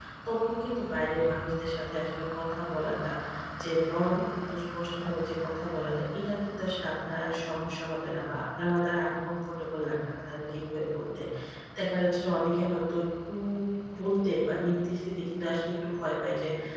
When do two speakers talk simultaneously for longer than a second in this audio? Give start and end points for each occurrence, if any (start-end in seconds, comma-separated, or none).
none